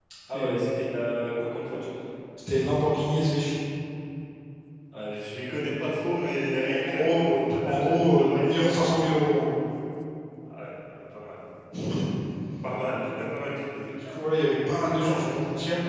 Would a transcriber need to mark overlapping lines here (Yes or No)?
Yes